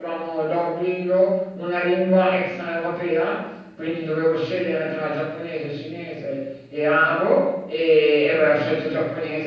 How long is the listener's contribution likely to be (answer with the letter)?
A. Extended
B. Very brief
B